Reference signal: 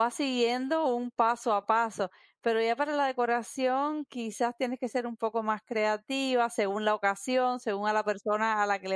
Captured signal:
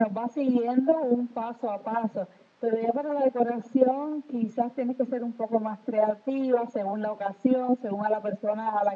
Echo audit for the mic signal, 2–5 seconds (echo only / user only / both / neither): echo only